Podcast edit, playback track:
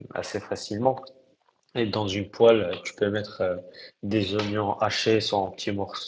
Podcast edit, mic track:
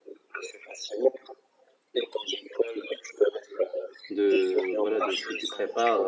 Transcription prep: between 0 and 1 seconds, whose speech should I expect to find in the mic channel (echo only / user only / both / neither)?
echo only